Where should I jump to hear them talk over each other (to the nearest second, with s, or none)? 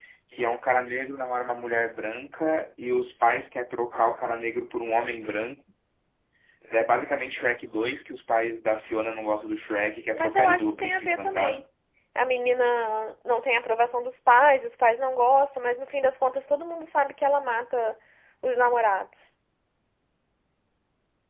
10 s